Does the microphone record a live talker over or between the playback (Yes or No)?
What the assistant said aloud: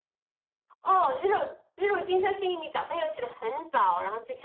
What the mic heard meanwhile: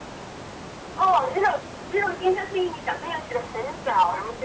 No